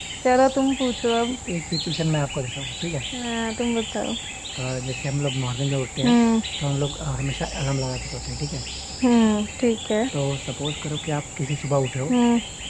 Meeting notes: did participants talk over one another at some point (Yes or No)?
No